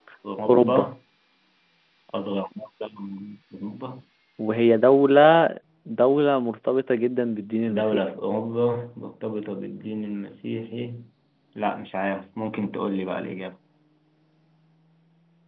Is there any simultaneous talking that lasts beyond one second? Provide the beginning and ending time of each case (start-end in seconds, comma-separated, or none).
none